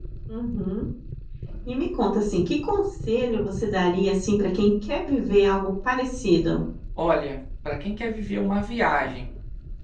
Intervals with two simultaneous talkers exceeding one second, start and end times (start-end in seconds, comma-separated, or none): none